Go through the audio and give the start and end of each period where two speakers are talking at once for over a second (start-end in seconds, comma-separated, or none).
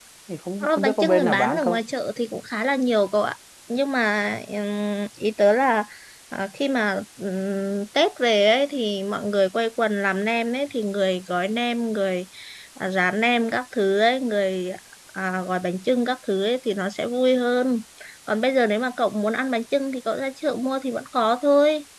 0.6-1.8